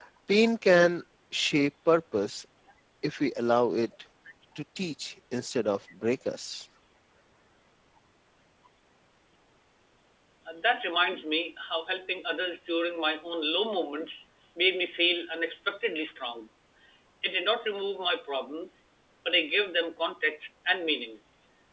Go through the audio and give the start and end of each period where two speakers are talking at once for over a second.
none

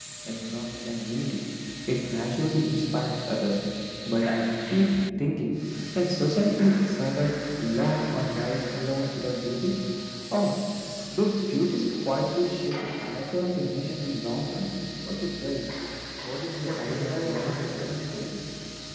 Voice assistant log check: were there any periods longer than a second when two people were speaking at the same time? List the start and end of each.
16.6-18.3

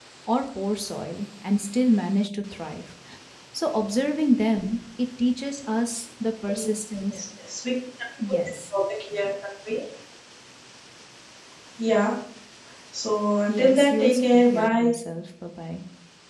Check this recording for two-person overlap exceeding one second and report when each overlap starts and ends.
13.5-14.9

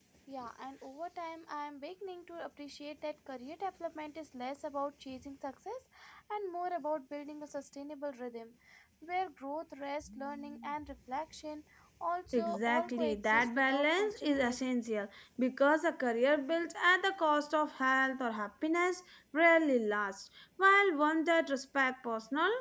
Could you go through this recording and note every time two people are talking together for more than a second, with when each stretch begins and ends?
12.3-14.6

